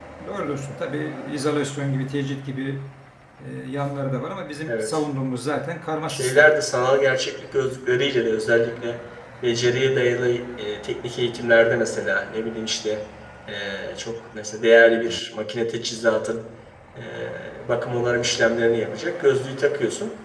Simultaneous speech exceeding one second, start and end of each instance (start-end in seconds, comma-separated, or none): none